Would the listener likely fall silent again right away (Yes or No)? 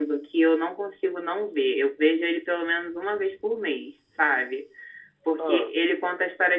Yes